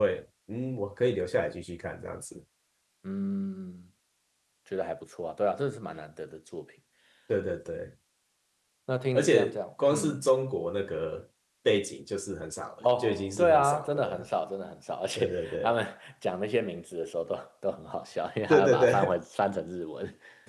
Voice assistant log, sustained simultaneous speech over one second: present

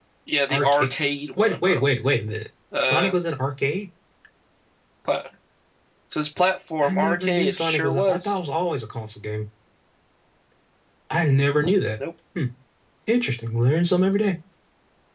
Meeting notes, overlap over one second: present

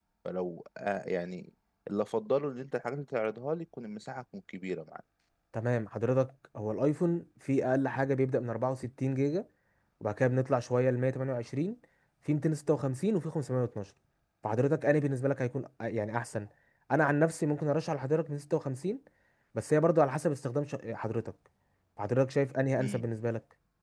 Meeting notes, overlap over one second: none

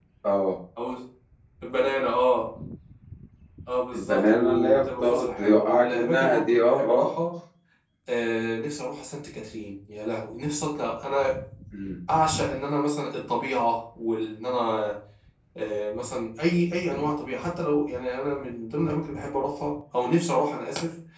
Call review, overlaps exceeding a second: present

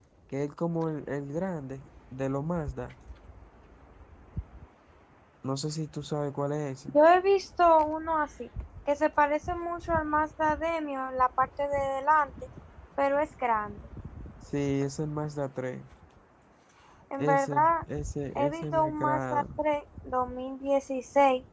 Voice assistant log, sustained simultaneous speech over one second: present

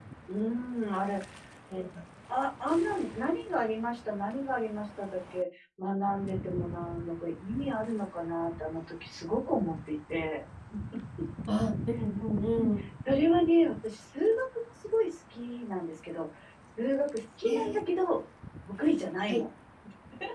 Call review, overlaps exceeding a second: none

